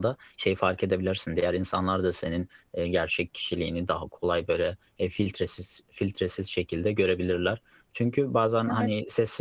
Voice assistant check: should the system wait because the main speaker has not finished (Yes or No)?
Yes